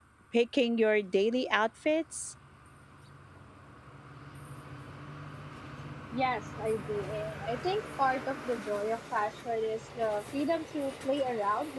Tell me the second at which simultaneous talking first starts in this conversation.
none

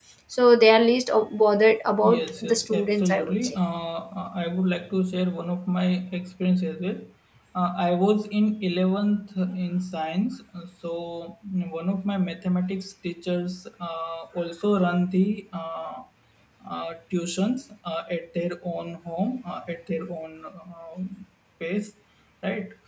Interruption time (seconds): 2.0 s

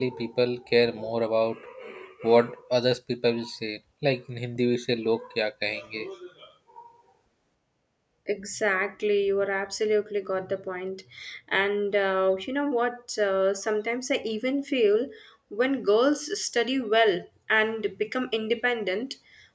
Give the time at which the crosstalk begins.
none

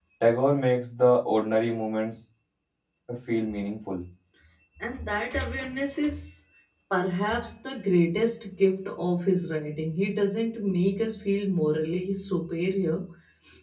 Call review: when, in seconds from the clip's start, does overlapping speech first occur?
none

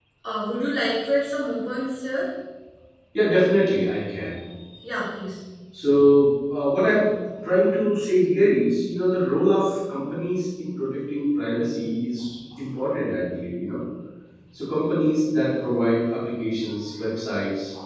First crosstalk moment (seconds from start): none

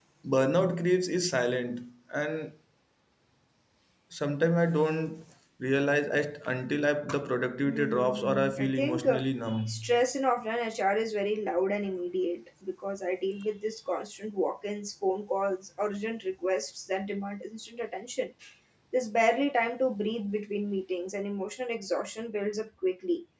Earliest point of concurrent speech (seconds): 7.7 s

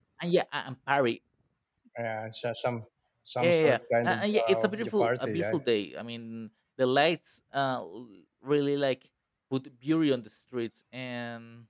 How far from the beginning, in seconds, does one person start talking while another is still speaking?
3.4 s

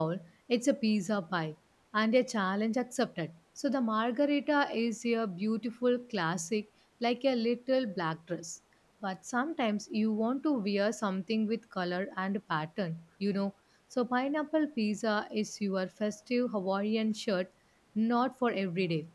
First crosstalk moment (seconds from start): none

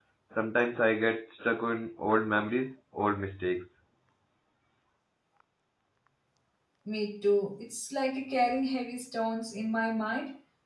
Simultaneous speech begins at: none

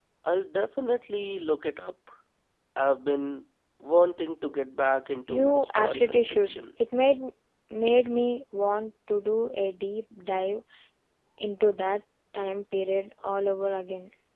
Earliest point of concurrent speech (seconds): 5.3 s

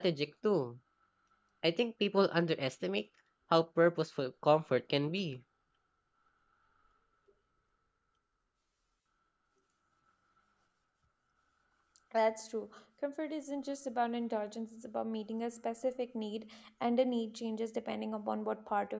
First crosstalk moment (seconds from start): none

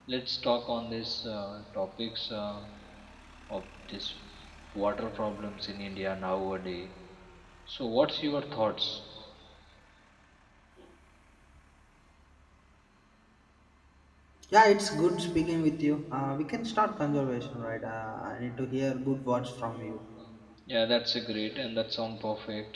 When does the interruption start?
none

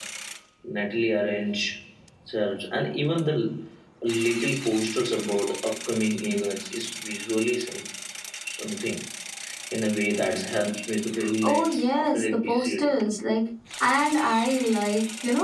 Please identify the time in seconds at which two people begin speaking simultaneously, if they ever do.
11.4 s

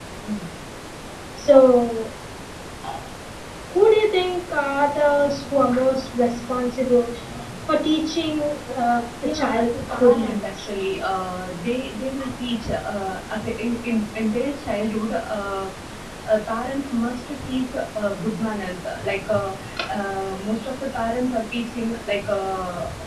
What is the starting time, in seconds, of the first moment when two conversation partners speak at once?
9.2 s

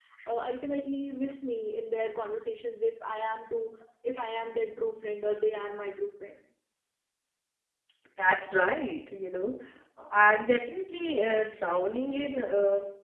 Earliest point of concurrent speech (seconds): none

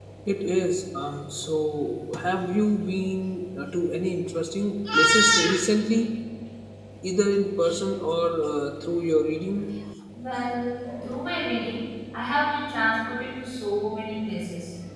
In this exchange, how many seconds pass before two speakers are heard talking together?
none

